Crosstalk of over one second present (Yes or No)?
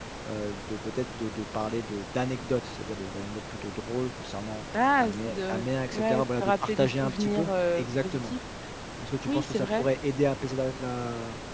Yes